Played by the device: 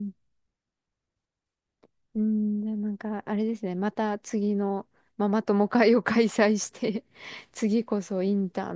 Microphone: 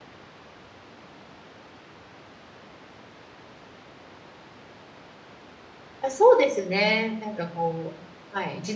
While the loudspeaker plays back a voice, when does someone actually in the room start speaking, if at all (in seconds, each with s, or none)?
6.0 s